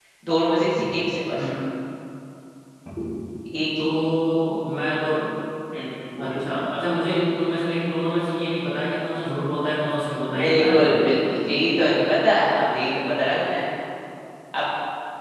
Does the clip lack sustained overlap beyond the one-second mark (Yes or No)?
Yes